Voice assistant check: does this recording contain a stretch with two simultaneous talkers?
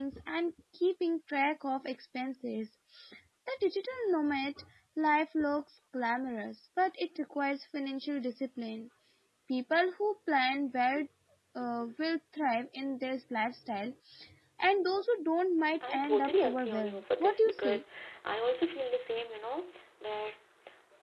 Yes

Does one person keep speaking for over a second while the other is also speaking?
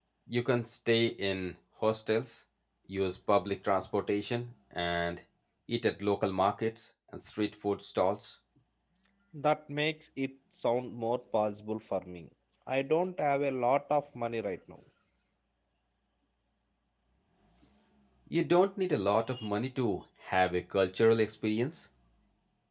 No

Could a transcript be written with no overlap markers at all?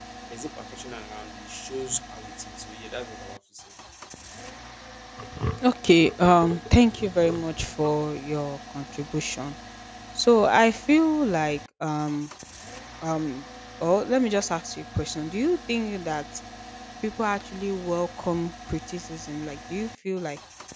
Yes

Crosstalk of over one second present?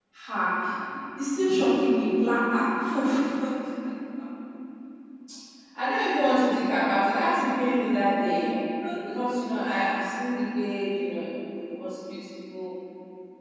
No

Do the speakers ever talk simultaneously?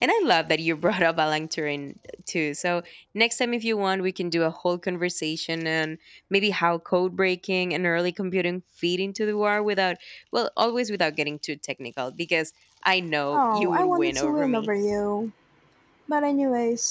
Yes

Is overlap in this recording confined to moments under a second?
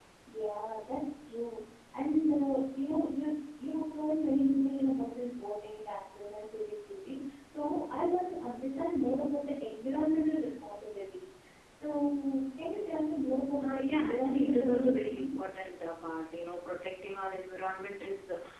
No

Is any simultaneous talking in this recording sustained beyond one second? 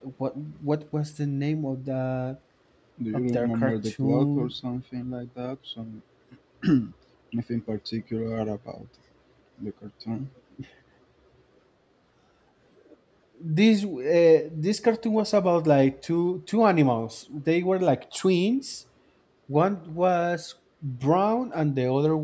Yes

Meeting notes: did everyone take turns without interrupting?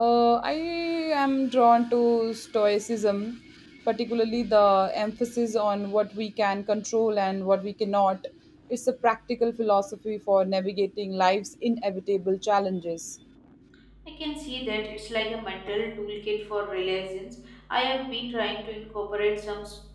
Yes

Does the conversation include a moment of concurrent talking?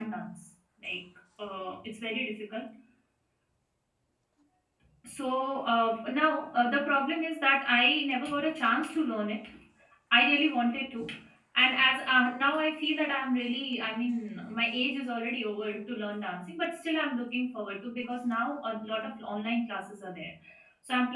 No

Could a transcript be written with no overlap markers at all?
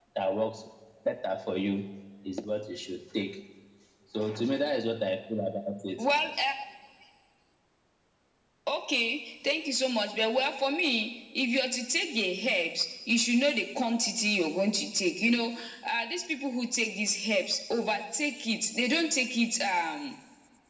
Yes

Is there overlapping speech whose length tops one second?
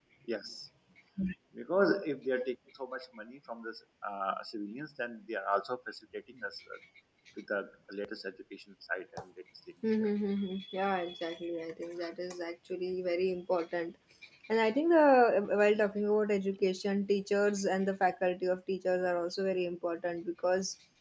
No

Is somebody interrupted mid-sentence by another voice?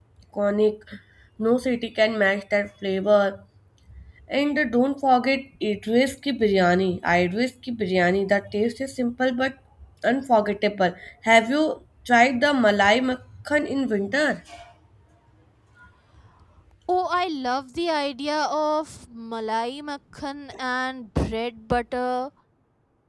No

